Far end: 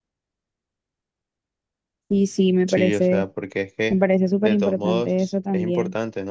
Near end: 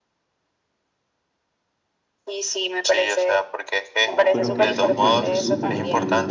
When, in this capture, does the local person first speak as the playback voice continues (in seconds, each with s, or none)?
4.0 s